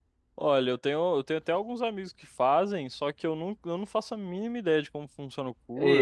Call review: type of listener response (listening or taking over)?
taking over